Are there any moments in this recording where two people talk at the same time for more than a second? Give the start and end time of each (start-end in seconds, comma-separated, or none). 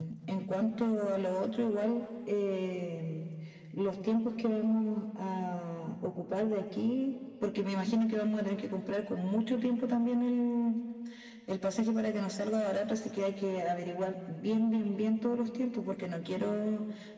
none